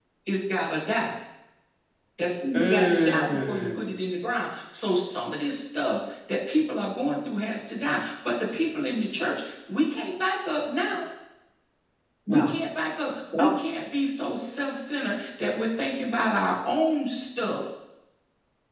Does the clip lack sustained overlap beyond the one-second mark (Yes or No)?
No